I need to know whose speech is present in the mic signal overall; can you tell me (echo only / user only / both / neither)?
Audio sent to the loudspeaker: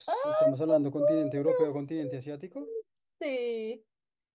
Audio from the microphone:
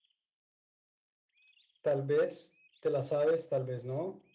user only